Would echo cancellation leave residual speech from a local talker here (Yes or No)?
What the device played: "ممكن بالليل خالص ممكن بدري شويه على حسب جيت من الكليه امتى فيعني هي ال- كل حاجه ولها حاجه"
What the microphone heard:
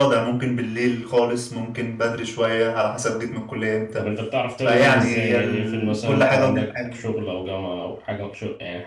Yes